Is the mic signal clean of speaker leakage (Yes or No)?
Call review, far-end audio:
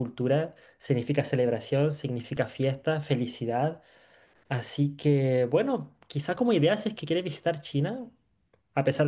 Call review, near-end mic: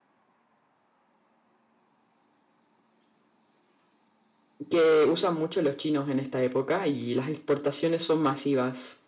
Yes